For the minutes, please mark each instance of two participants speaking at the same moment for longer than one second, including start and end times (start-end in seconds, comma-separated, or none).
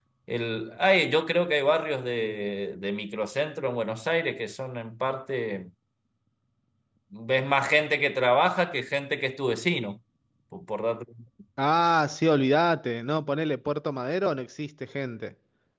none